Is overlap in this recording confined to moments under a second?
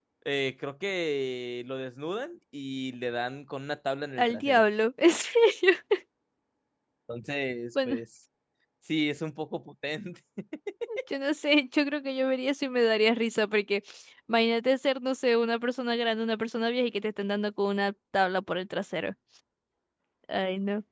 Yes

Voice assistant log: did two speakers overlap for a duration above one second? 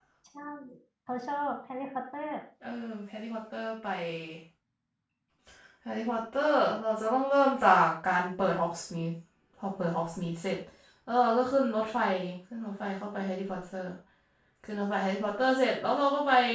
No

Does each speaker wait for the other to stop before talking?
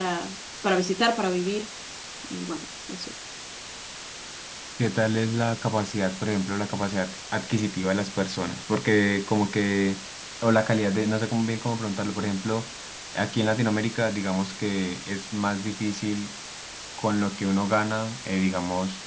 Yes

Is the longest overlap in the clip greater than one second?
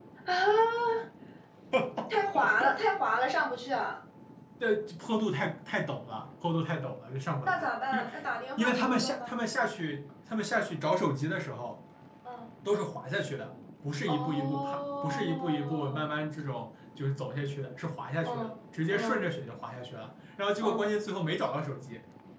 Yes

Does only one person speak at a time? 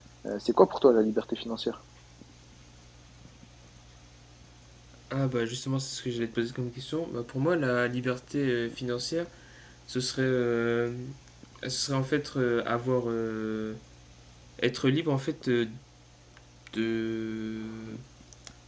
Yes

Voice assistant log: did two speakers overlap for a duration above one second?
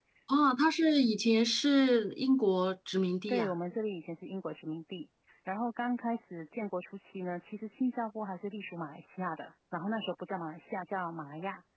No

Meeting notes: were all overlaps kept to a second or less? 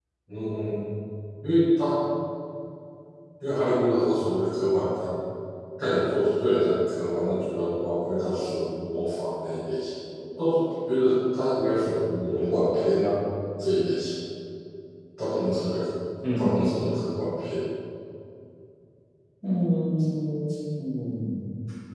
Yes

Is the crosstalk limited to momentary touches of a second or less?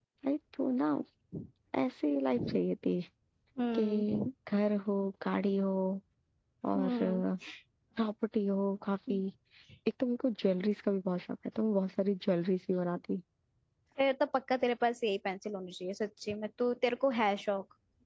Yes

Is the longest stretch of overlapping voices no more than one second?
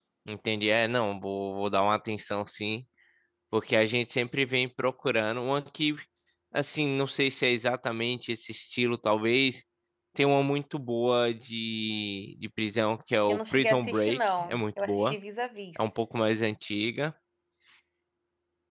No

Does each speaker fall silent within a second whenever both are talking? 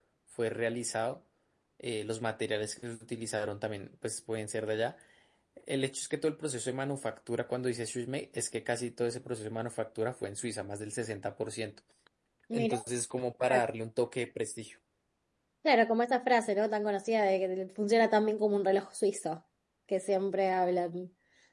Yes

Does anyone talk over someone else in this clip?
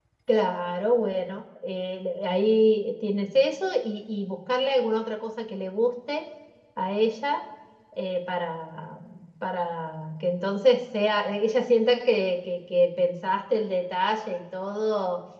No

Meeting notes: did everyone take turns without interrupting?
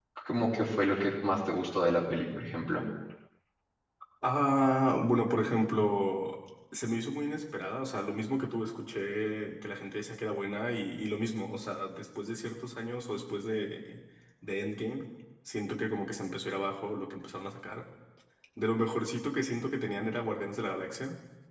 Yes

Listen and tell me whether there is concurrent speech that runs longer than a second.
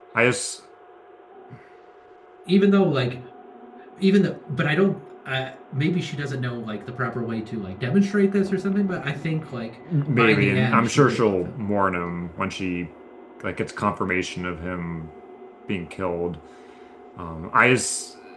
Yes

